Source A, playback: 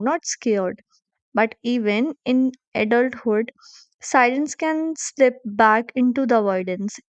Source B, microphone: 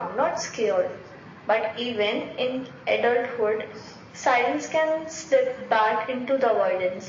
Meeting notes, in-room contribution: none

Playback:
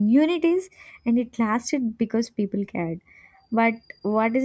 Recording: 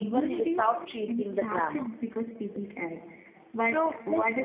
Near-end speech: present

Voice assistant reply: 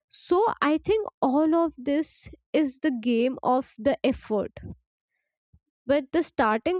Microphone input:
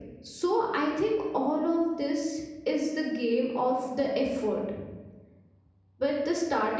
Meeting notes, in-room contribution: none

